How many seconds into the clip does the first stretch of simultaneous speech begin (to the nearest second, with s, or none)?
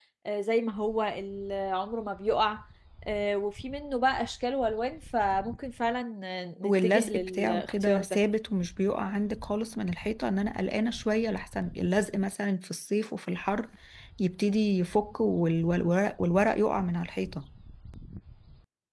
7 s